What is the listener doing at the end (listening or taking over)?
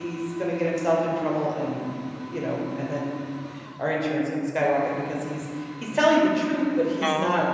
listening